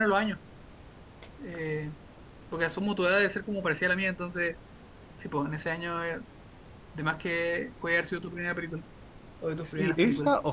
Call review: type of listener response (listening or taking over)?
taking over